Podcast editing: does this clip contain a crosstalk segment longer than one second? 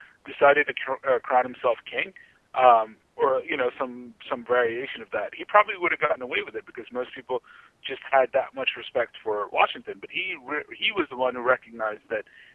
No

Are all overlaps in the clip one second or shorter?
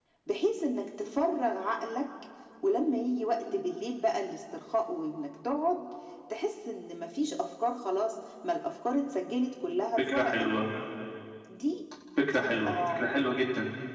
Yes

